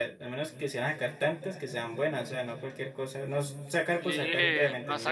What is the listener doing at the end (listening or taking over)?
taking over